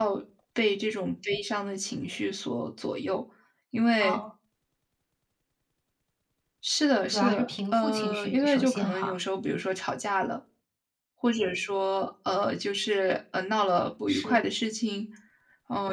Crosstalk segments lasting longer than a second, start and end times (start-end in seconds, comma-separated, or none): 7.1-9.2